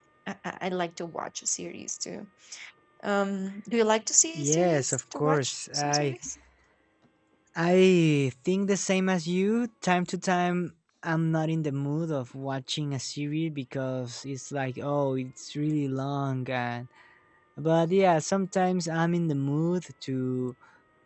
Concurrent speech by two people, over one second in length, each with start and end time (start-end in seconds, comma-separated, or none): 4.3-6.2